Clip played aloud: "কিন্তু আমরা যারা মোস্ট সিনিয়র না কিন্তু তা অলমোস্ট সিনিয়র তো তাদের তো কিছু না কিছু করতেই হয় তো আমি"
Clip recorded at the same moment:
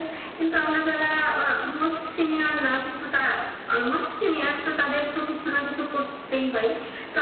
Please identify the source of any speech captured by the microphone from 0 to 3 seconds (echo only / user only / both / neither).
echo only